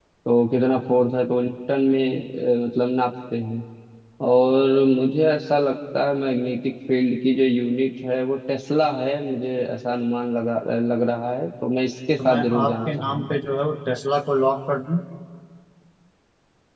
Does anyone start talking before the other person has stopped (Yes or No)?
Yes